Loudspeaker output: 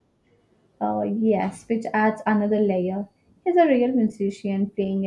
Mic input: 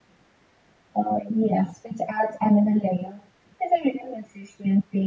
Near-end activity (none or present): none